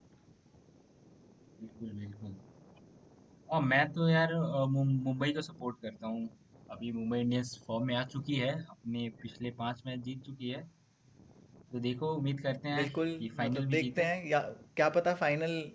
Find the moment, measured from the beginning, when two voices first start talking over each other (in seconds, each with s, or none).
12.7 s